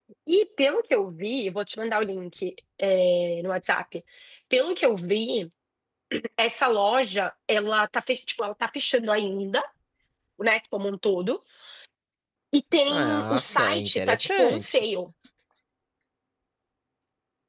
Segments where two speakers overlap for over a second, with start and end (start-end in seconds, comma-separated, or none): 12.9-14.8